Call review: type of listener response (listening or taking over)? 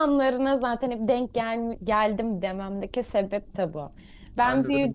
taking over